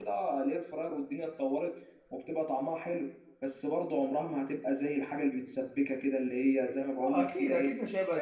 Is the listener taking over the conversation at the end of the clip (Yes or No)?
Yes